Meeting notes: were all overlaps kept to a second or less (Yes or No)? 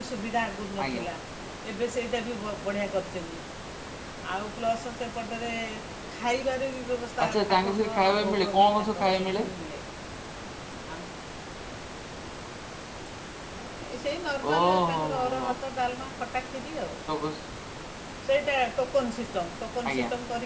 No